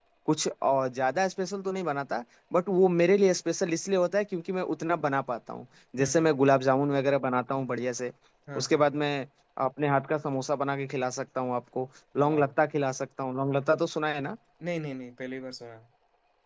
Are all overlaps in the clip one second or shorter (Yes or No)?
Yes